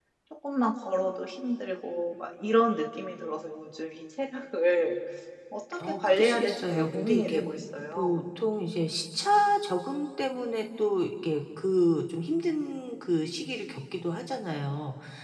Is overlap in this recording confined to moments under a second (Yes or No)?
No